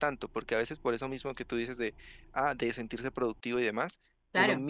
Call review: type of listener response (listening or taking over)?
listening